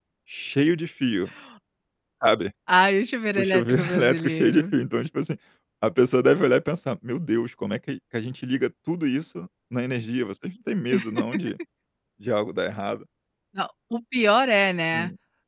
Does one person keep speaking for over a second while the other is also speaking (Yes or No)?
Yes